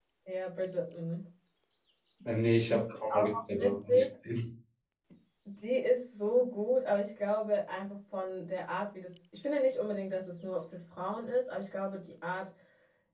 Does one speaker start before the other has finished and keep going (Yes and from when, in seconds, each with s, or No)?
Yes, from 2.7 s